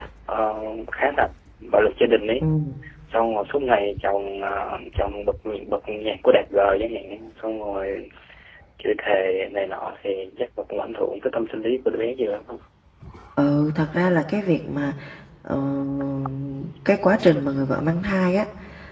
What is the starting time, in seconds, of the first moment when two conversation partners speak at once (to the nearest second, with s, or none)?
none